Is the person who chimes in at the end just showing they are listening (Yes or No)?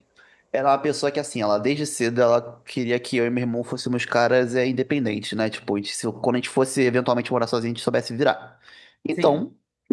Yes